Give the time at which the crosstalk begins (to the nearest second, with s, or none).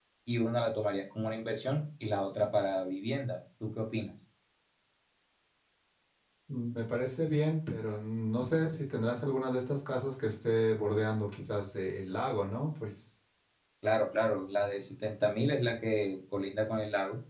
none